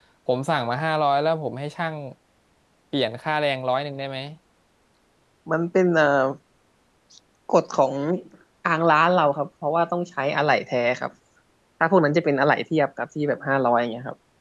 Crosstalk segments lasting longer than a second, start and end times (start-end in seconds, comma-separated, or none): none